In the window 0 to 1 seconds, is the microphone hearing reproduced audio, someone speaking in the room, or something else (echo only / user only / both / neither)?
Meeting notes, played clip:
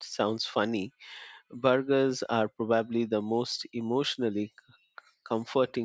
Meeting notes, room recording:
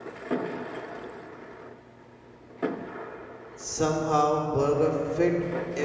neither